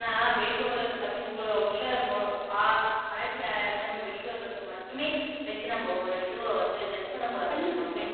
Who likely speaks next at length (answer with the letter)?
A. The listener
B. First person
A